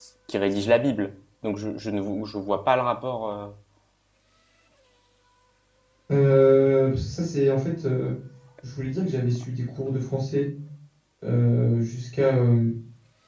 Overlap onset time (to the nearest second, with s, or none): none